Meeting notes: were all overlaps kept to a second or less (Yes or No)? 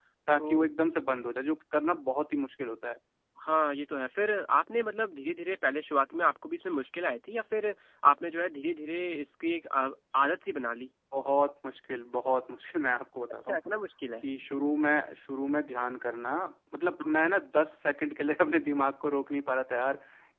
Yes